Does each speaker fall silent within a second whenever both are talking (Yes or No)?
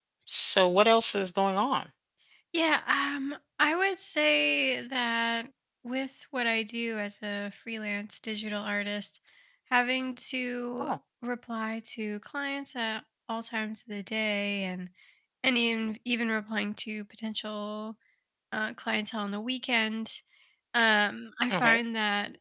Yes